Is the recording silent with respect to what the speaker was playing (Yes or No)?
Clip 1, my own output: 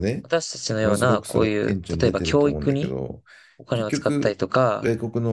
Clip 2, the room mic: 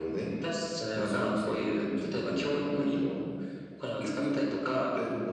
No